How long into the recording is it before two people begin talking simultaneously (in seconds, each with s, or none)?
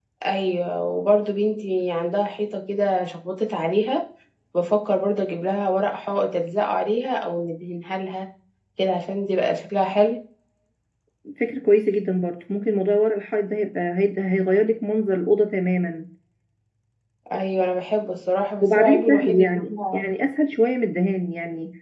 18.6 s